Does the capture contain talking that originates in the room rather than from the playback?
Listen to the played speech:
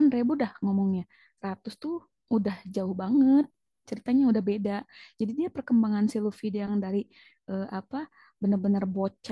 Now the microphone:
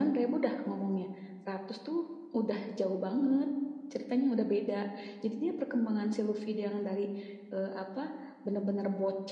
No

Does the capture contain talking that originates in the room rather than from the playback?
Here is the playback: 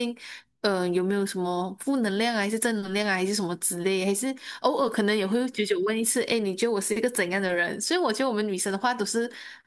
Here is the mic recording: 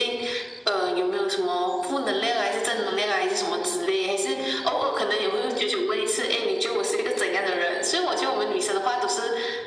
No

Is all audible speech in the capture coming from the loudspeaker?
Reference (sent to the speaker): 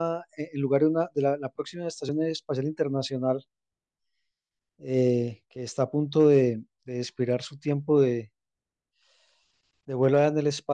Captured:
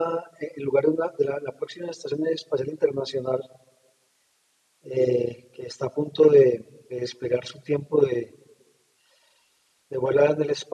Yes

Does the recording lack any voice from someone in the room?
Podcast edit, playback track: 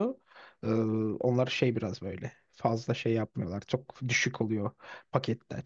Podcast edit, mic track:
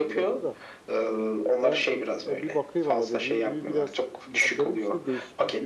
No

